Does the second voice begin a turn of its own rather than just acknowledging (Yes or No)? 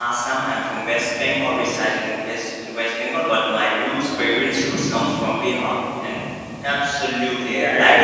Yes